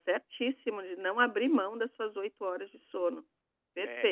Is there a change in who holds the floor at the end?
Yes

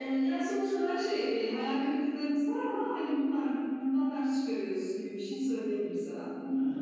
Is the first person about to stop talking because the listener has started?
Yes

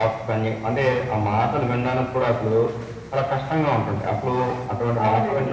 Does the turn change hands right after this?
Yes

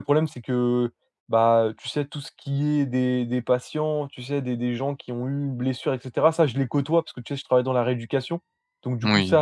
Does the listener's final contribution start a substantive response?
No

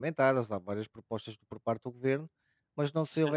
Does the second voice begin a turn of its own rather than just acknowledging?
No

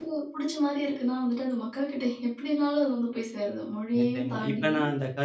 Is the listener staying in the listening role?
No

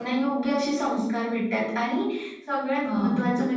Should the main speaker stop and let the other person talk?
No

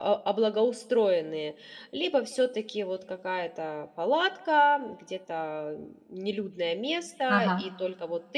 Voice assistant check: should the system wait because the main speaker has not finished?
Yes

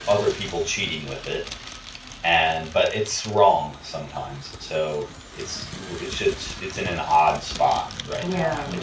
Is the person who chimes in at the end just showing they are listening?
No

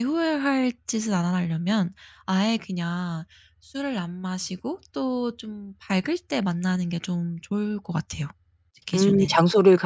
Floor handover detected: Yes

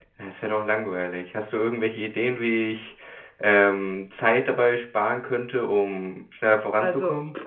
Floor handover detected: Yes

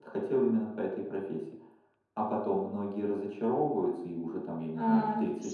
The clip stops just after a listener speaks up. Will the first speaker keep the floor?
No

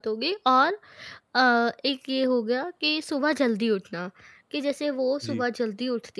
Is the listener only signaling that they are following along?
Yes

